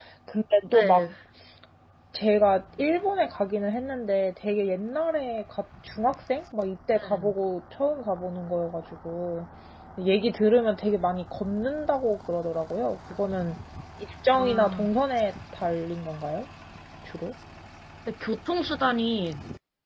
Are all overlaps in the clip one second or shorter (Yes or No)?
Yes